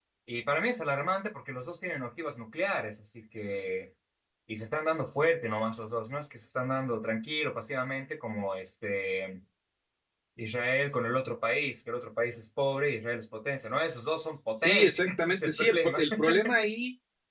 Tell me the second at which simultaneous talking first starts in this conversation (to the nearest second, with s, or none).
15 s